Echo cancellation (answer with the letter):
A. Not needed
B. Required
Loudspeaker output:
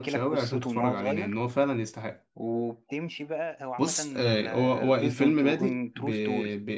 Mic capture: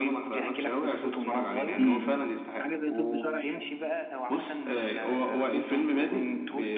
B